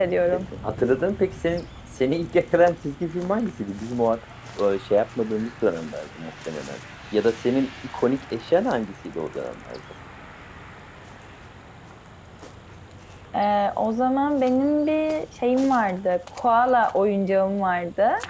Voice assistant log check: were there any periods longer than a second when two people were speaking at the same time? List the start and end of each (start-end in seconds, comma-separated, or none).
none